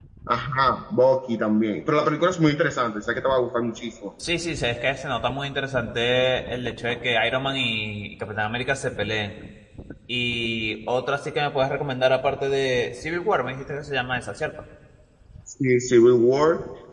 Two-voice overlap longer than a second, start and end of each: none

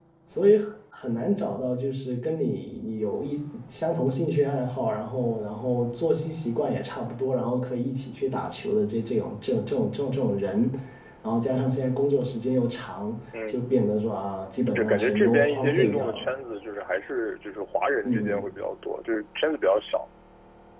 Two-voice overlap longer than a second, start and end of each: 14.8-16.3

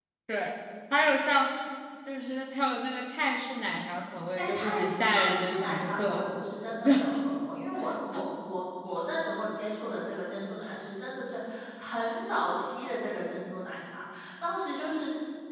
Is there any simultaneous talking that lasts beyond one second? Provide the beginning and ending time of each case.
4.4-6.2

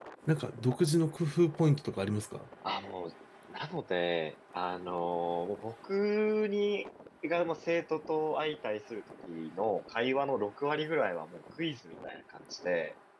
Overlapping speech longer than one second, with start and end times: none

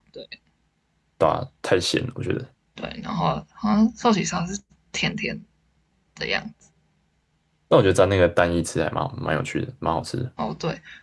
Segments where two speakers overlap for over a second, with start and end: none

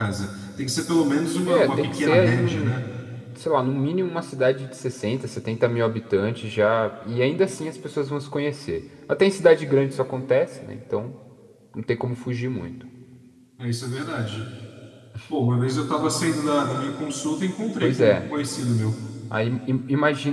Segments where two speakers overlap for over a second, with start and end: 1.5-2.9

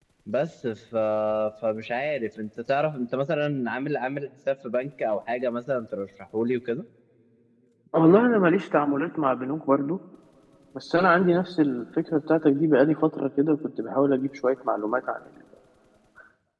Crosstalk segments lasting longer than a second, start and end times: none

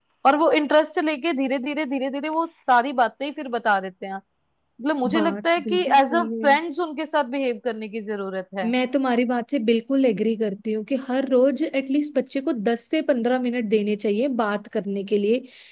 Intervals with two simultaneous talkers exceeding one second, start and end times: 5.1-6.5

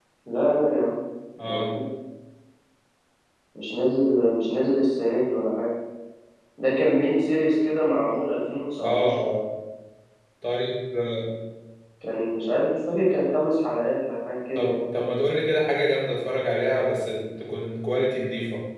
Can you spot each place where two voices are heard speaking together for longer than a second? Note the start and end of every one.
none

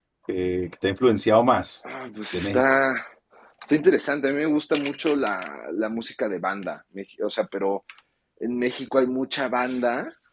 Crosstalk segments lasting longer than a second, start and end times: none

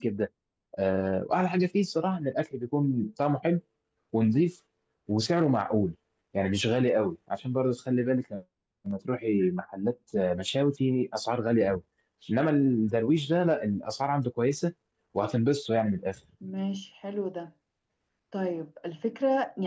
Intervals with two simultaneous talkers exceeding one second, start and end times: none

